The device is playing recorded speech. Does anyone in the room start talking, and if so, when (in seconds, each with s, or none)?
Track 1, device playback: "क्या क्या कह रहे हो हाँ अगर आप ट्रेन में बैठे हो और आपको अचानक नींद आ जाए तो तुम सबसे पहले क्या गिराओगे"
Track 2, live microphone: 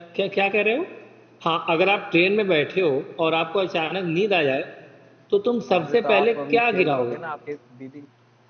5.7 s